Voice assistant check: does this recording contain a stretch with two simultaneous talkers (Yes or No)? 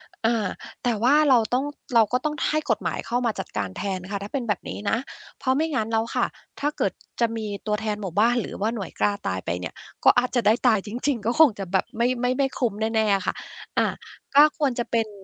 No